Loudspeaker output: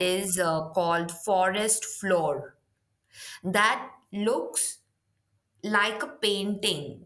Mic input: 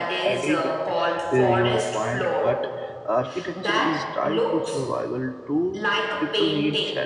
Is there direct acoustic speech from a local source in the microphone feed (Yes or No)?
Yes